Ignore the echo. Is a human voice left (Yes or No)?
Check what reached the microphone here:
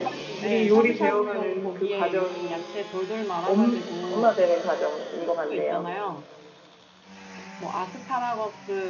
Yes